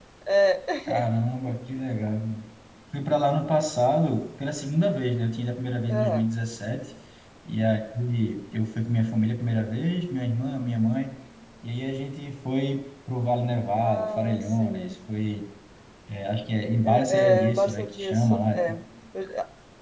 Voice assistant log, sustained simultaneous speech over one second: present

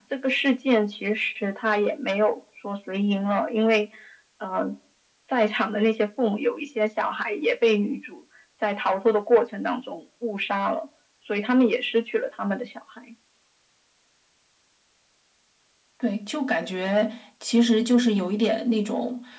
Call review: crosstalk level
none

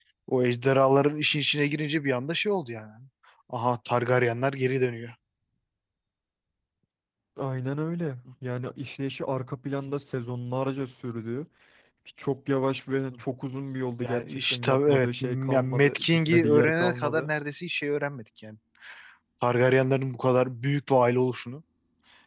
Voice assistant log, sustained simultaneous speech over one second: present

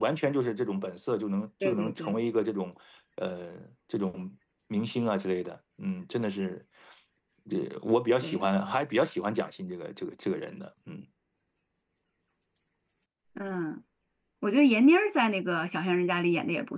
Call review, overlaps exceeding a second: none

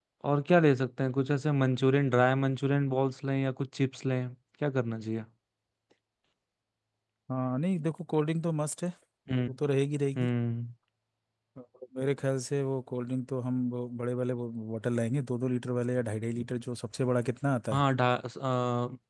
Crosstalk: none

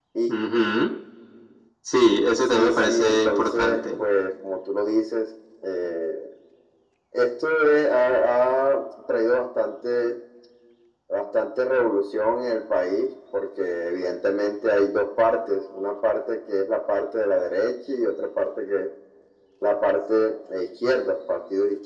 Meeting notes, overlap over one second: present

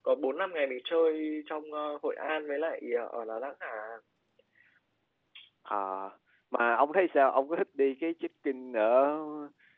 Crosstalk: none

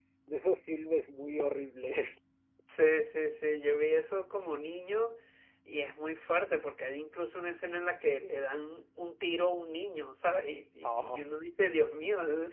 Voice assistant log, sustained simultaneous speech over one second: none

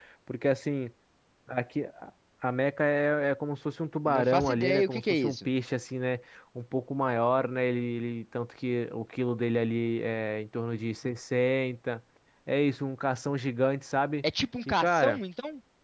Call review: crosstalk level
present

